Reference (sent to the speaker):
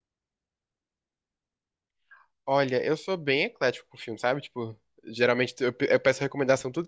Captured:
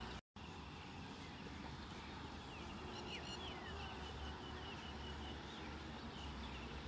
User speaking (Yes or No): No